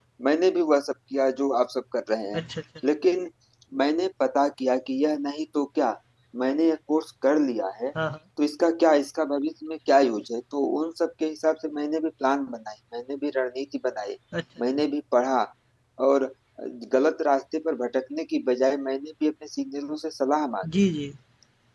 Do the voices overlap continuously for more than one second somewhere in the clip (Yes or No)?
No